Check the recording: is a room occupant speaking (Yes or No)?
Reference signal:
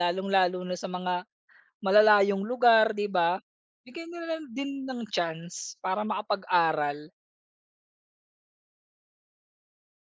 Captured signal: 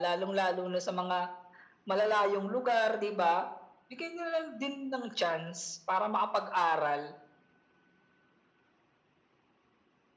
No